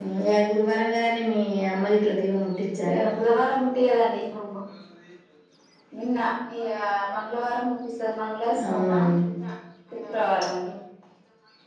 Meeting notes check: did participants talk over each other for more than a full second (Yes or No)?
No